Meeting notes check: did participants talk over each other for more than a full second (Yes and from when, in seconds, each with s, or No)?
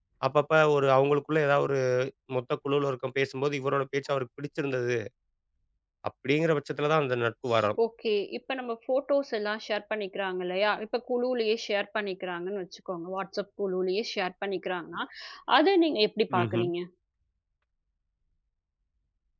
No